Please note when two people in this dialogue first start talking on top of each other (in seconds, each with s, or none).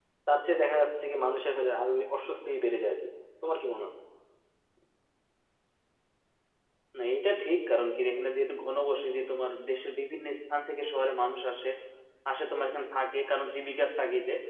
none